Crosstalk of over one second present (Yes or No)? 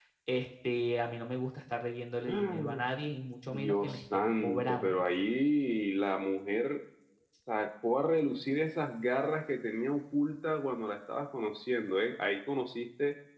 Yes